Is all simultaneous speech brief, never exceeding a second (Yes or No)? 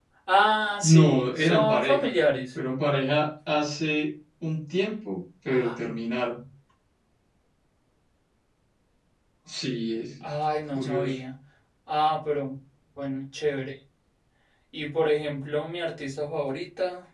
No